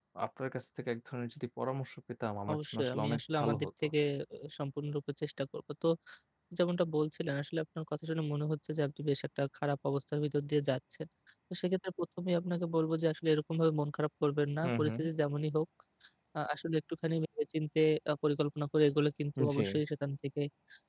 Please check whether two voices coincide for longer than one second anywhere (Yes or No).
Yes